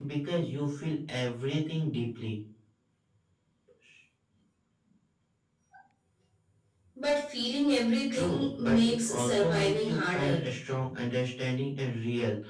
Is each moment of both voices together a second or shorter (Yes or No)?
No